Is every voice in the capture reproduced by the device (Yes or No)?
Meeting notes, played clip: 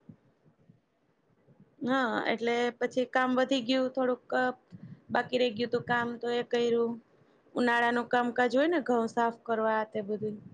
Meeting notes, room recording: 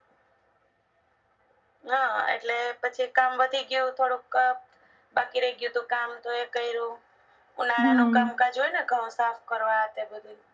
No